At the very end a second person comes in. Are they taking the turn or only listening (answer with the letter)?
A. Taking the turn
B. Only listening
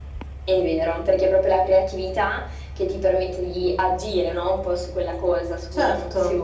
B